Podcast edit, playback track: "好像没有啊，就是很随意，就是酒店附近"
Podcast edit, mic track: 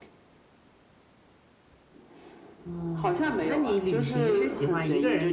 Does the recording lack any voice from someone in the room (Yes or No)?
No